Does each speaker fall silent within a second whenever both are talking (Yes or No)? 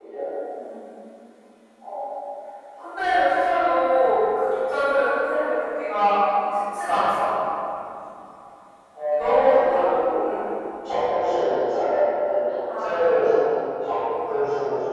No